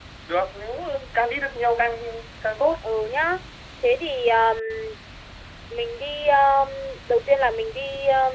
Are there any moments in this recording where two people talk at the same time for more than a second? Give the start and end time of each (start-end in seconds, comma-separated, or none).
none